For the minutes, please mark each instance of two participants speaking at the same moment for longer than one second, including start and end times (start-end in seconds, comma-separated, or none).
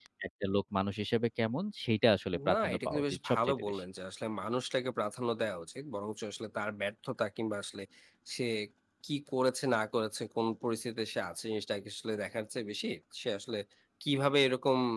2.5-3.8